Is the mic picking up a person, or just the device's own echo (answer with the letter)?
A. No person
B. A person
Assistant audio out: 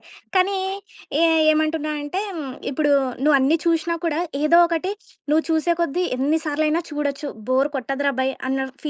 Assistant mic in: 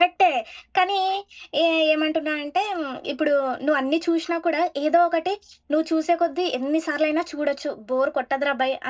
A